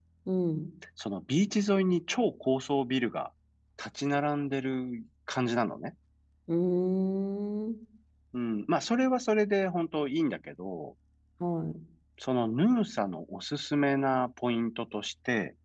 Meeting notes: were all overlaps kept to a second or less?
Yes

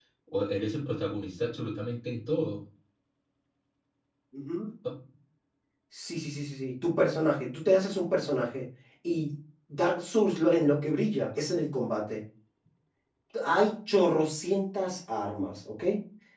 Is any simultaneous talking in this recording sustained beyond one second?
No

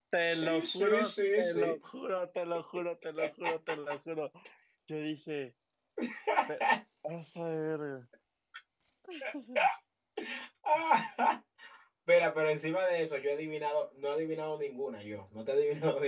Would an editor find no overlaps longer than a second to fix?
No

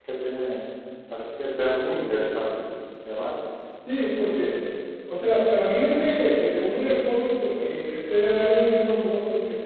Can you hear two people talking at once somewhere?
No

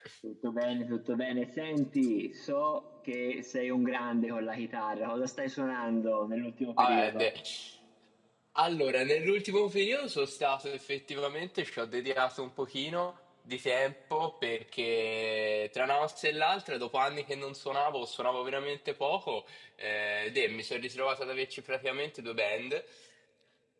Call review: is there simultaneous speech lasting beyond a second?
No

